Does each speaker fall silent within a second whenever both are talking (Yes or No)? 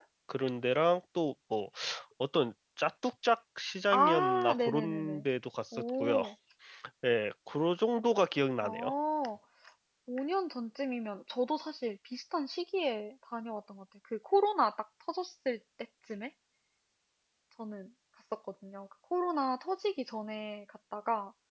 No